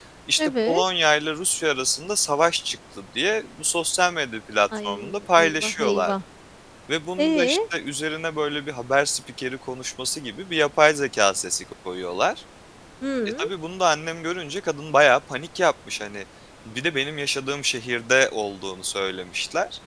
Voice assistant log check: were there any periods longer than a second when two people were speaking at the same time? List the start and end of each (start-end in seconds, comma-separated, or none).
4.8-6.1